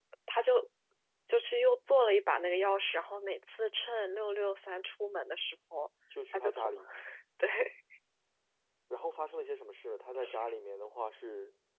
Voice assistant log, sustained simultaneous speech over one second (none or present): none